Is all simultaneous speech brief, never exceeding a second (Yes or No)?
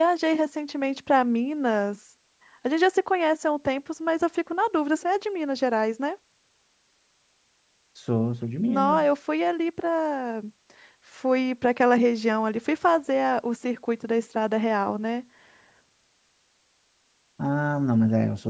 Yes